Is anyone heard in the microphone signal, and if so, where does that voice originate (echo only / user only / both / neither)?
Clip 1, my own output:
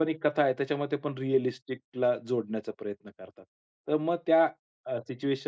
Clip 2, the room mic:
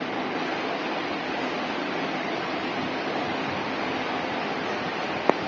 neither